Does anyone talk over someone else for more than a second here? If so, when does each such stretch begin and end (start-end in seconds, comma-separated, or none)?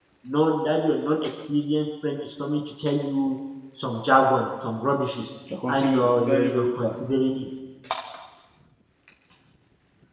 5.7-6.9